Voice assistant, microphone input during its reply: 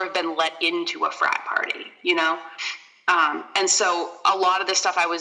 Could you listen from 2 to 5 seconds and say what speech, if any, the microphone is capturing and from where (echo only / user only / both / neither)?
echo only